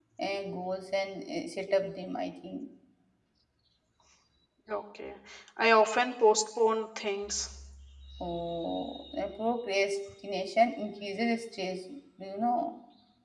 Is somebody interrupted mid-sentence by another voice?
No

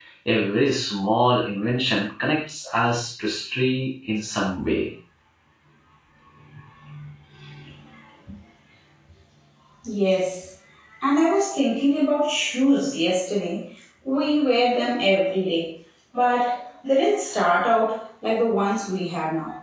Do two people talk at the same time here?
No

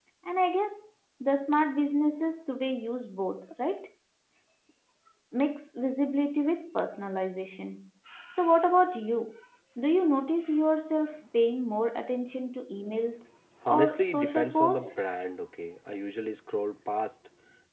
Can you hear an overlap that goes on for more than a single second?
Yes, from 13.6 s

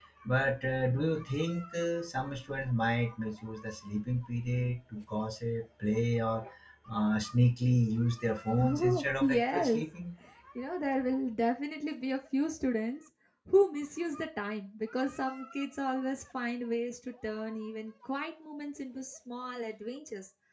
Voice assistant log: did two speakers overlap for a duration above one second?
Yes, from 8.6 s

